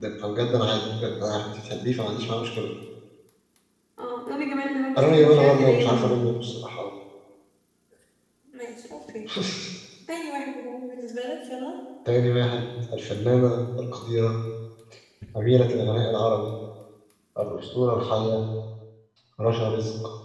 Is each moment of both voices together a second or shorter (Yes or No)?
No